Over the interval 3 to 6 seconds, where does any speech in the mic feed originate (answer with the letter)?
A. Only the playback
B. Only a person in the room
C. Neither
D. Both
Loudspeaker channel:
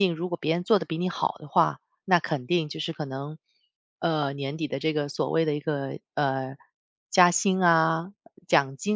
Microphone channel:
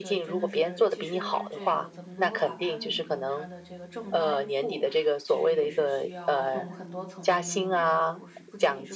D